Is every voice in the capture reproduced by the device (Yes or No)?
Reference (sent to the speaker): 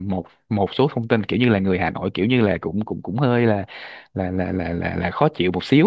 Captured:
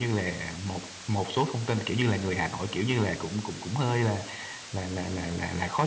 Yes